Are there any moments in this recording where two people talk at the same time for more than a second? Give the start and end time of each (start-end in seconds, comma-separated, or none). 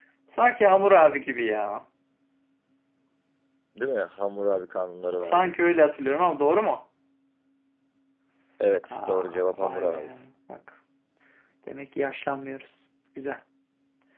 8.9-10.1